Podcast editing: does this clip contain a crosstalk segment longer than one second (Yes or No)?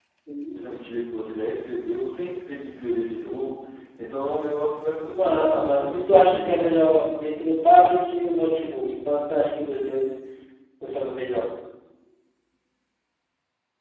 Yes